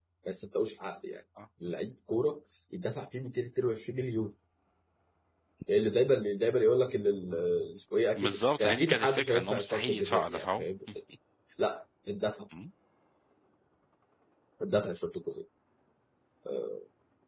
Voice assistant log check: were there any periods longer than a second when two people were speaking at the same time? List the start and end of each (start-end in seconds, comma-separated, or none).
8.2-10.7